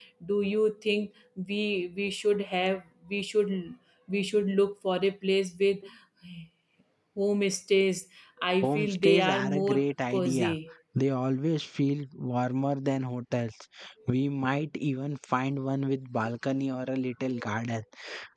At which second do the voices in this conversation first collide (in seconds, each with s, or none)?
8.6 s